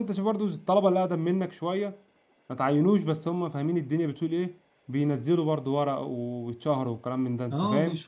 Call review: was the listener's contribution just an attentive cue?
No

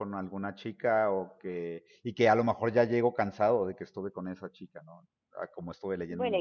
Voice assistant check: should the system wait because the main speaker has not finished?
No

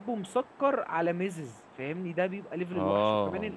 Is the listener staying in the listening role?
Yes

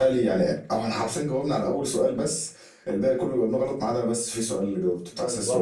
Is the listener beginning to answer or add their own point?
Yes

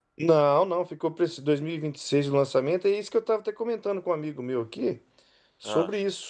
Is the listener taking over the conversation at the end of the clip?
No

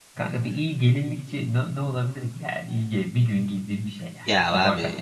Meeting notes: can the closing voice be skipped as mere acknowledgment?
No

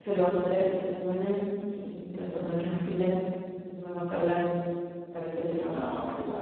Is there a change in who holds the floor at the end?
Yes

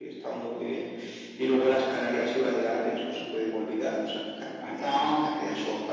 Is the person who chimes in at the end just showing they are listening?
Yes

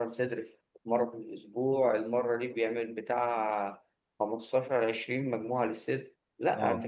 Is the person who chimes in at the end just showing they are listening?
Yes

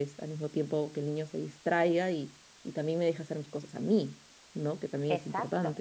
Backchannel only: No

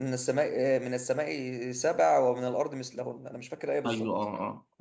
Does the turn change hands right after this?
Yes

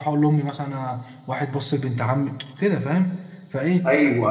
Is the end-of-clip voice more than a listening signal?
No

